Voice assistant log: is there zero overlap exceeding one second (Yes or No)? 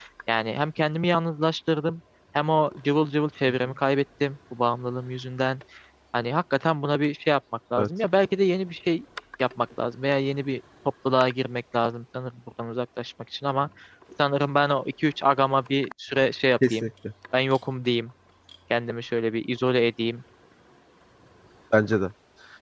Yes